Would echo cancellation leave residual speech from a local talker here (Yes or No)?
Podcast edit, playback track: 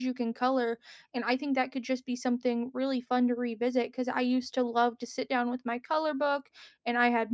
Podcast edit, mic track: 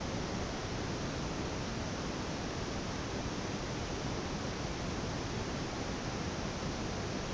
No